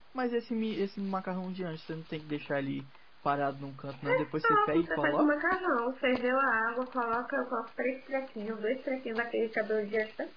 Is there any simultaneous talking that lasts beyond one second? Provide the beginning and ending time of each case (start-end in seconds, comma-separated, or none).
4.0-5.3